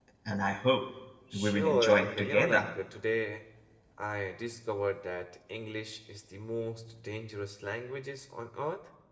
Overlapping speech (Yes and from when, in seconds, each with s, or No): Yes, from 1.3 s